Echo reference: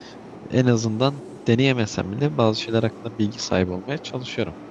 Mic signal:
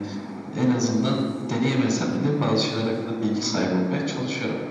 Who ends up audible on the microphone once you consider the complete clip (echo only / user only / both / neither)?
echo only